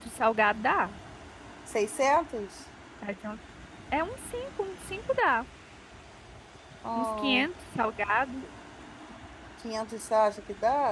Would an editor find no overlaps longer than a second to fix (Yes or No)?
Yes